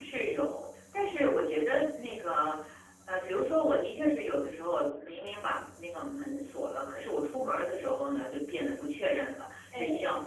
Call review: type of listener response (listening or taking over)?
listening